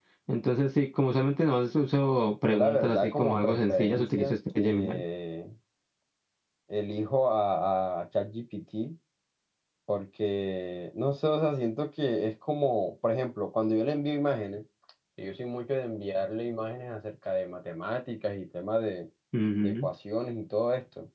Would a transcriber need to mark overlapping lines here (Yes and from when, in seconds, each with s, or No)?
Yes, from 2.4 s